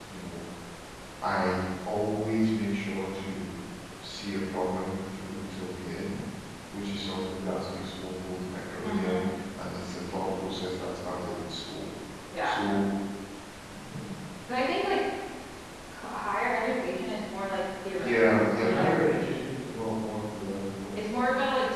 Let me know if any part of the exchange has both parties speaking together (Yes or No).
Yes